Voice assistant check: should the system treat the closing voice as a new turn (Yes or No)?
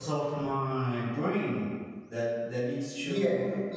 Yes